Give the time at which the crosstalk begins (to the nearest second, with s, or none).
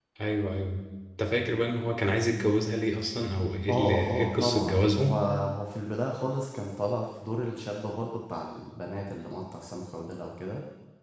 4 s